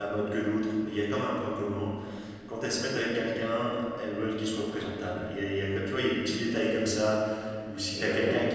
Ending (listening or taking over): listening